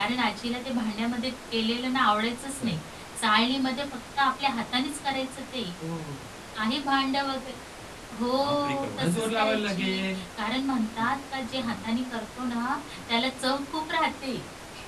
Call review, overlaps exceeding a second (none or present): present